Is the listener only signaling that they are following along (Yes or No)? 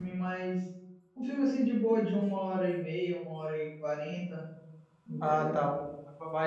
No